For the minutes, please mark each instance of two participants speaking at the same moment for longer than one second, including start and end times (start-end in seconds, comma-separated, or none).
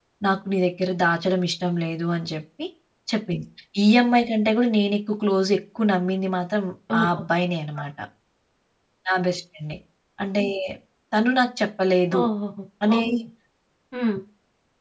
none